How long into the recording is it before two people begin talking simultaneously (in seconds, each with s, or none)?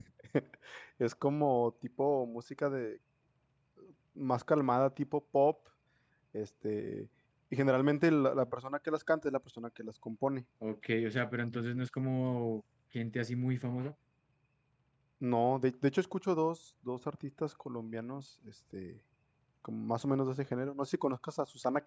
none